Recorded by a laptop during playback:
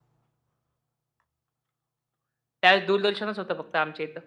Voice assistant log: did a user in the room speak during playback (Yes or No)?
Yes